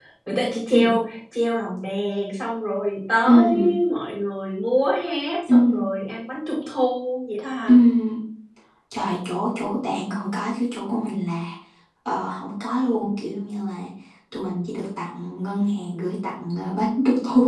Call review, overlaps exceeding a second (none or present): none